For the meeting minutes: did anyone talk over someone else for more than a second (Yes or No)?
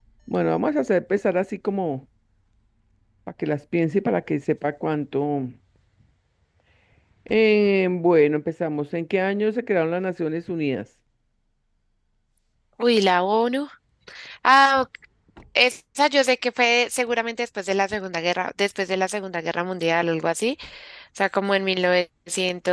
No